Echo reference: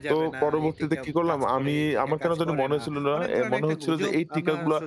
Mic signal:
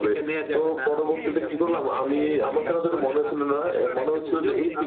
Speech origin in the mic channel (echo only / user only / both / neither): both